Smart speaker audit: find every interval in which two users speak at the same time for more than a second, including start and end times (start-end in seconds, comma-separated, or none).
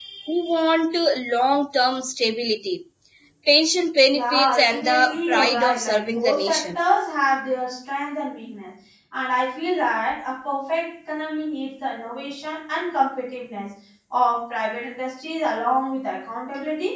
4.1-6.8